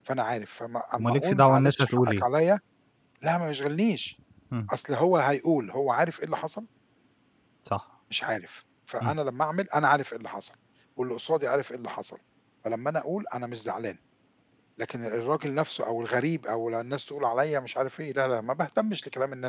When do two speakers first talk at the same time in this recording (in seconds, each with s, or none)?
1.0 s